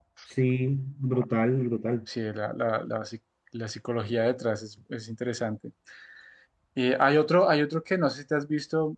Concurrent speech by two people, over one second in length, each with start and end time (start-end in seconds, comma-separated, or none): none